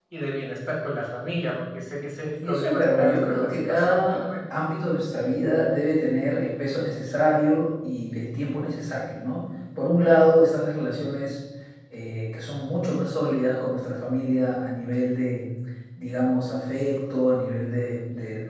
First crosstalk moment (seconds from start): 2.4 s

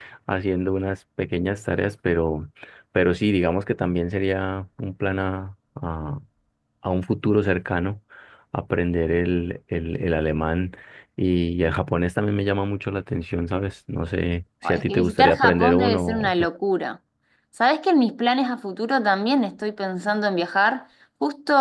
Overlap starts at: 14.6 s

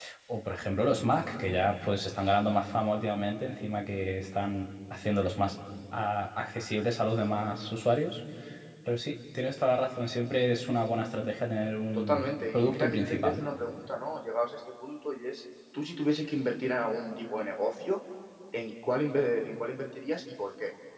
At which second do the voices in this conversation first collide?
11.9 s

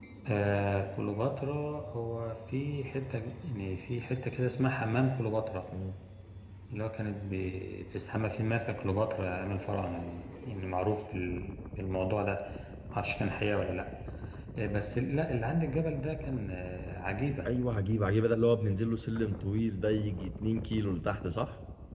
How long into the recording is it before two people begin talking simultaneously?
none

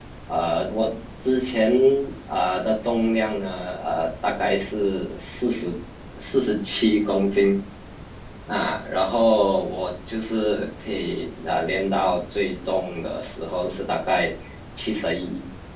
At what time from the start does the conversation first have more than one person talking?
none

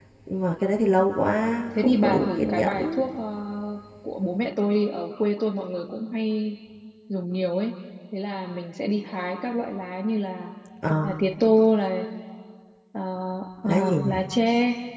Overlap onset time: 1.8 s

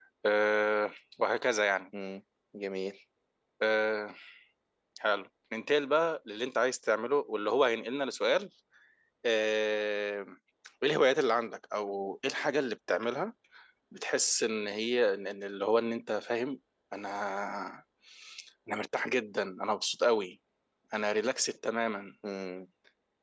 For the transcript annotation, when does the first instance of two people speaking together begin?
none

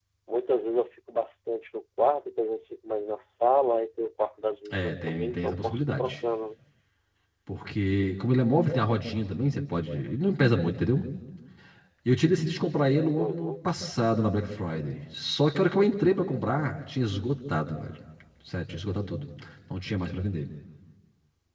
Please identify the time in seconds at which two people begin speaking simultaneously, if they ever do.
4.7 s

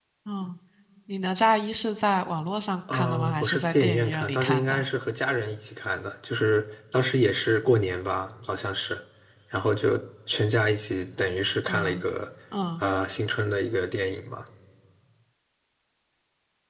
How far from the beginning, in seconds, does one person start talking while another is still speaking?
2.9 s

